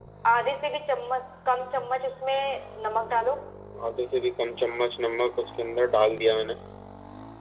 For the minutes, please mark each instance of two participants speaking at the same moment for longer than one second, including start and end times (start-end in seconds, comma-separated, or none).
none